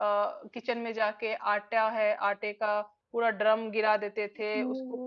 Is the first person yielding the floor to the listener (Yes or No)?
No